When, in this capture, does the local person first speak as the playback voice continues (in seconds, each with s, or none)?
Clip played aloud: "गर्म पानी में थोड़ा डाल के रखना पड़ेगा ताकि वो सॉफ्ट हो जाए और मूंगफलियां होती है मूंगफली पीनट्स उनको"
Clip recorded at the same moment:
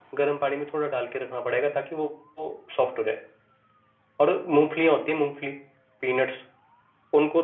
none